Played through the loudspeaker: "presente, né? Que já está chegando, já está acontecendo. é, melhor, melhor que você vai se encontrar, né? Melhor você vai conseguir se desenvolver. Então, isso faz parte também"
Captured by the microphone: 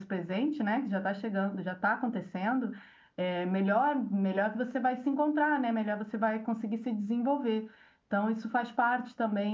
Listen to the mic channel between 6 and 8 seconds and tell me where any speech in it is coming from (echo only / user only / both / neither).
echo only